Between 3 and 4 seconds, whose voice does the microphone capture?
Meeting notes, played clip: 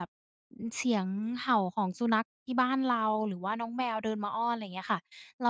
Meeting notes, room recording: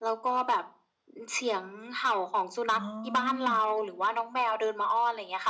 both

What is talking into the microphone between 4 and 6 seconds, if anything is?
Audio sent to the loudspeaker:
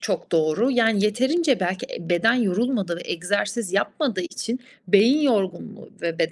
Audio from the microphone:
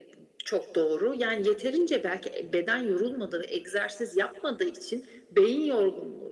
echo only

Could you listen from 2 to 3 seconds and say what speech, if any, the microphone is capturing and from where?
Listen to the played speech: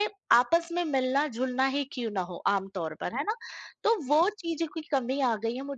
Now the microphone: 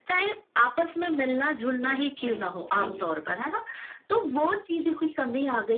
both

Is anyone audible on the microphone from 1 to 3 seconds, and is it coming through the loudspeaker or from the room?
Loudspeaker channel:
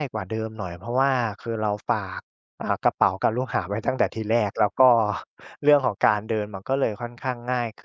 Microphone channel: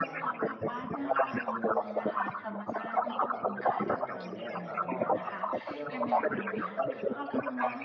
both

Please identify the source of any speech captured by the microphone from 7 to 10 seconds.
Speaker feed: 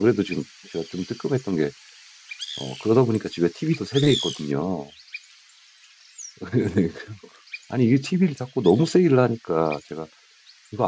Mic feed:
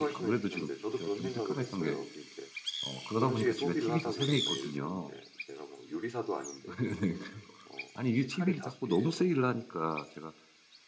both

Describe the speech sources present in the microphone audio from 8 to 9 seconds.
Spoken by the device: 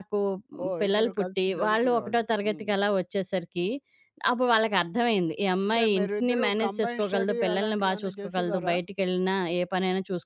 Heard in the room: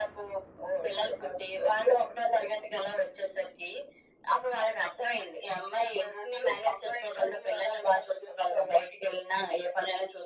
echo only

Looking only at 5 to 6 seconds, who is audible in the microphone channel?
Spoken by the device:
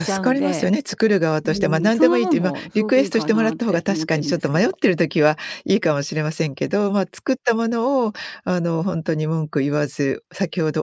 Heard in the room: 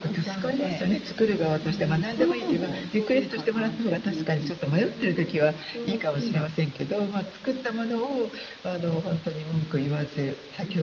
both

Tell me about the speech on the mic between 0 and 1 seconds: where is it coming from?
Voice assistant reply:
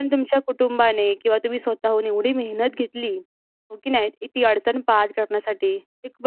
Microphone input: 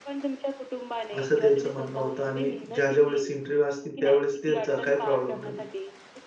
echo only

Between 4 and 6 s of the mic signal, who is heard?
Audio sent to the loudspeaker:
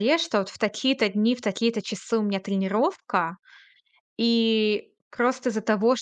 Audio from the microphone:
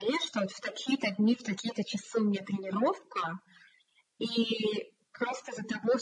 echo only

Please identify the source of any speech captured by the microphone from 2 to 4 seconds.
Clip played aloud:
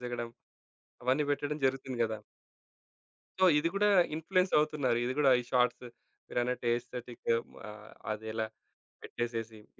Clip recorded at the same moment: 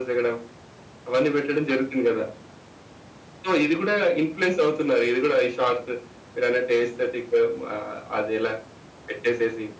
echo only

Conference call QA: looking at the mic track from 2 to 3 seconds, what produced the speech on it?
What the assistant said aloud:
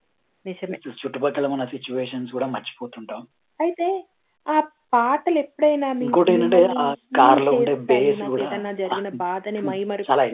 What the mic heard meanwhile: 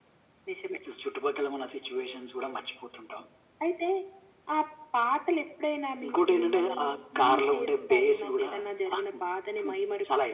echo only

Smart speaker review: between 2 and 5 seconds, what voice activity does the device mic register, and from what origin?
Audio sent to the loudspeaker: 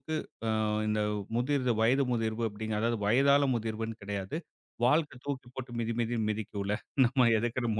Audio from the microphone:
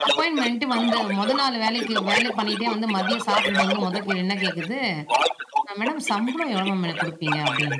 both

